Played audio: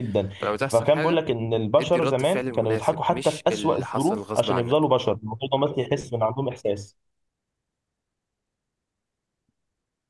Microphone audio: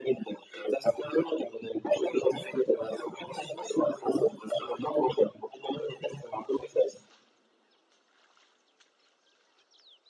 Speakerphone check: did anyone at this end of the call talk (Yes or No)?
No